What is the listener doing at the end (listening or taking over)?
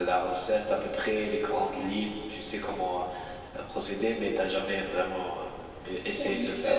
taking over